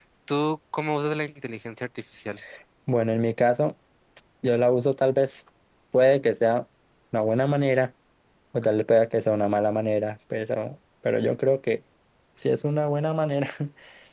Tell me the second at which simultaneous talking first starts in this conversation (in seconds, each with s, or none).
none